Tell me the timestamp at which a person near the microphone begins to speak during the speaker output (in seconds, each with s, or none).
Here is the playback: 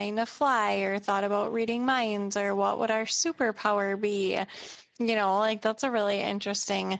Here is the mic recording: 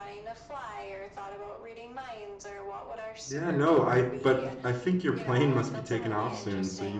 3.2 s